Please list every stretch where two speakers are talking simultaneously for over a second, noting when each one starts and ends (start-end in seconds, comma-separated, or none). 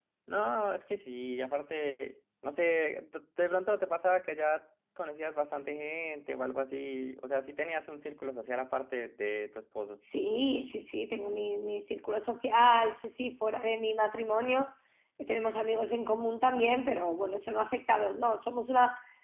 none